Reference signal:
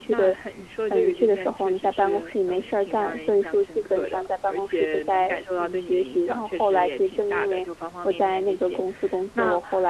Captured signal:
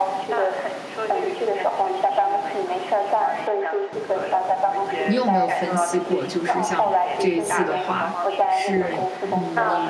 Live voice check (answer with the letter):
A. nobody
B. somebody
B